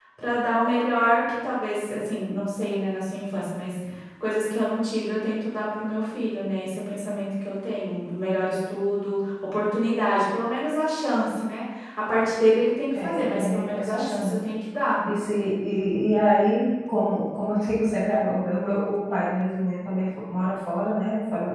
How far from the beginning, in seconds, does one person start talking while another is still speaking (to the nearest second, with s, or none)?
13 s